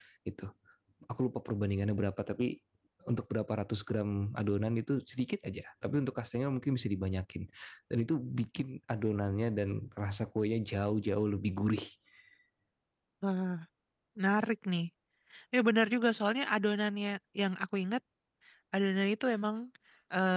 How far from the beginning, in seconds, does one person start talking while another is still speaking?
none

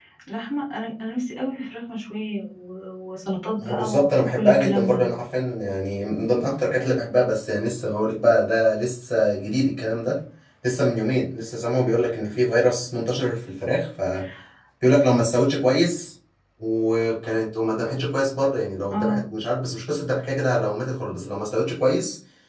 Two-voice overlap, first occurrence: 3.6 s

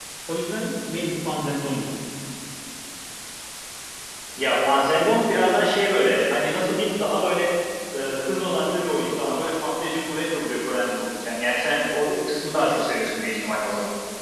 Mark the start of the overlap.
none

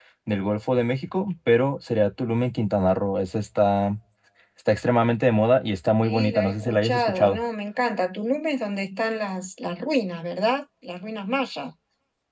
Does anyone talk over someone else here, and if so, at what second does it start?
6.0 s

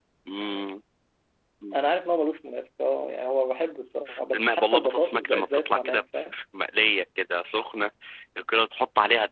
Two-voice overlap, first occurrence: 4.3 s

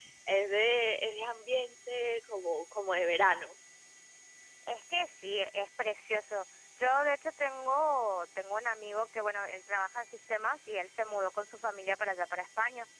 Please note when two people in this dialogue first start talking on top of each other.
none

